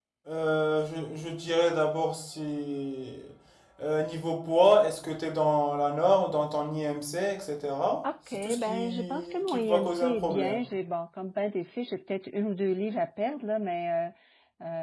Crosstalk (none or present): present